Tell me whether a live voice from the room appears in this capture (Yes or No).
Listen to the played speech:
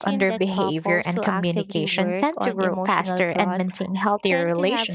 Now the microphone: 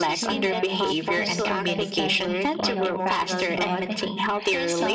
Yes